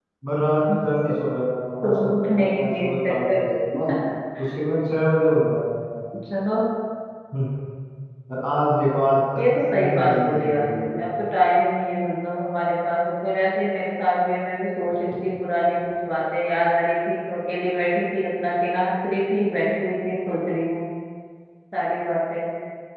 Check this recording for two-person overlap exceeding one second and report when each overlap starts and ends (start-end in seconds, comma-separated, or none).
1.8-3.5, 9.4-11.0